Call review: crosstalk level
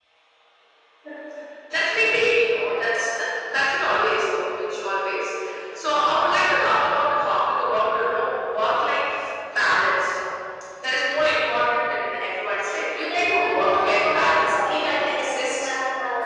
present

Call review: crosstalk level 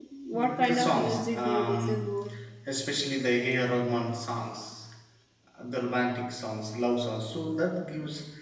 present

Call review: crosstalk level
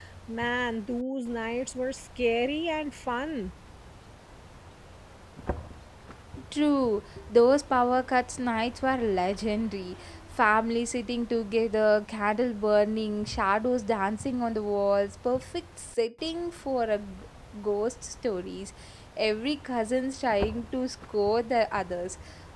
none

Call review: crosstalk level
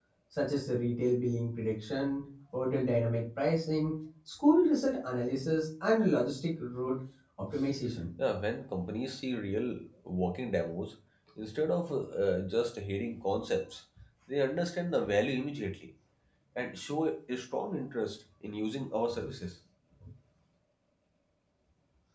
none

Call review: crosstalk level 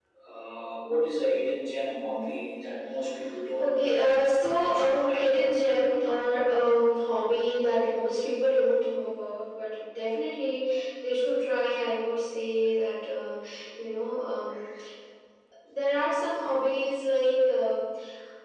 present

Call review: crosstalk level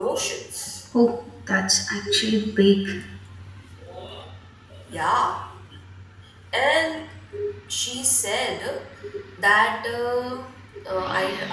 none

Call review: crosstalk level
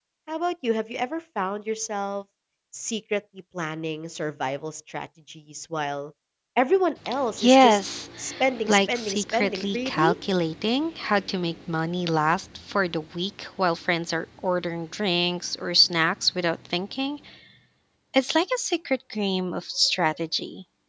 present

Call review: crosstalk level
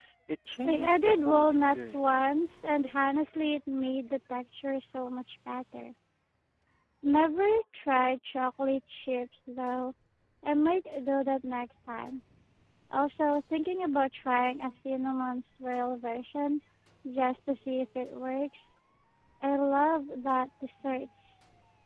present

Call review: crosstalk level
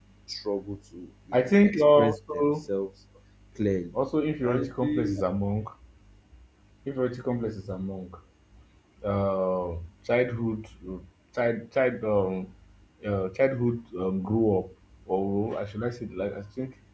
present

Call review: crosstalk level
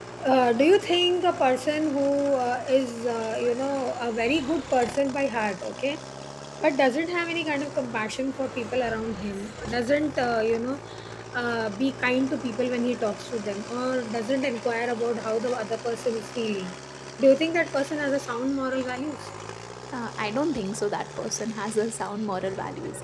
none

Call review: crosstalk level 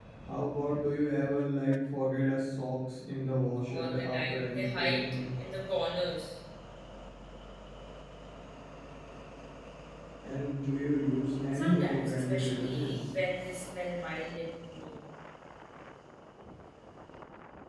present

